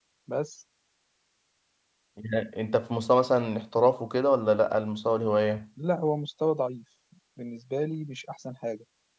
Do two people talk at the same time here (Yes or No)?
No